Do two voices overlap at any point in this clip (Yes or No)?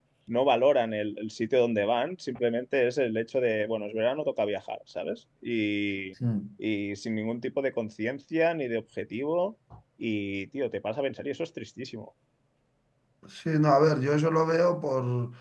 No